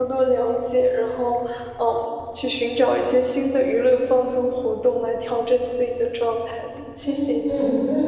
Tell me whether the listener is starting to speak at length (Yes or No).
Yes